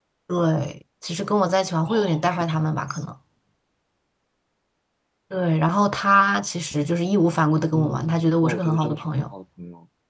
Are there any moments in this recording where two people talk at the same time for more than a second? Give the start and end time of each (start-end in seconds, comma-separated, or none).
1.8-3.0, 7.7-9.1